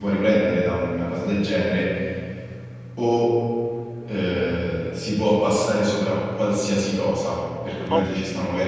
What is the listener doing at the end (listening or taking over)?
listening